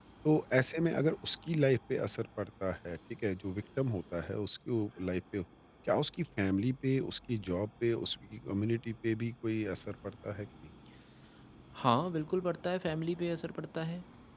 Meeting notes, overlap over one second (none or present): none